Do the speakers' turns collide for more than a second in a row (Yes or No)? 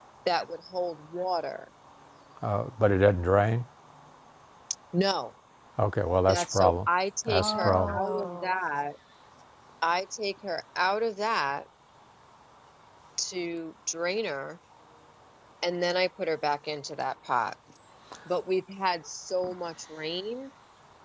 Yes